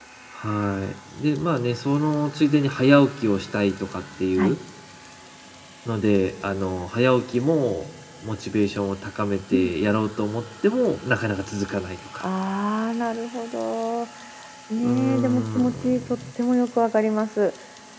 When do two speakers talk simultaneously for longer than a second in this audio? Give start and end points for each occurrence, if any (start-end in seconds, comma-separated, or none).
14.8-16.2